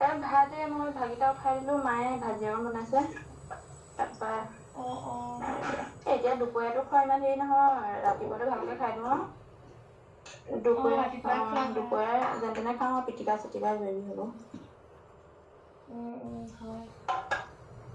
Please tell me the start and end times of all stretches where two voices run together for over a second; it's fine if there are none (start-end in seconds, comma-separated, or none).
10.8-12.0